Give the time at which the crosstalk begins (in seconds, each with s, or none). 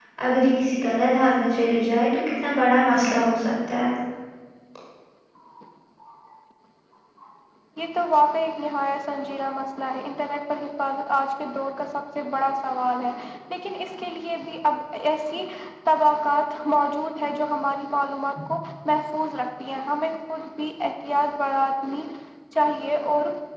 none